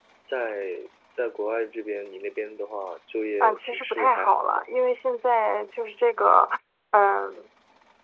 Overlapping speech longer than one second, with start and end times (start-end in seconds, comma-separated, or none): 3.4-4.7